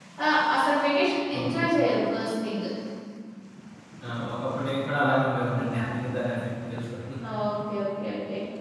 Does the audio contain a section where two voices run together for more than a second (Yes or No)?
No